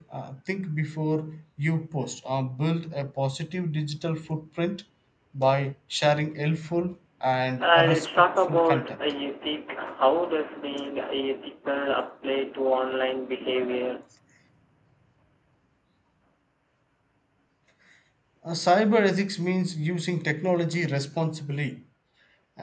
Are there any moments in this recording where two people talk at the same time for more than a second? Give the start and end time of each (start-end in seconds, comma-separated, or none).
7.6-9.0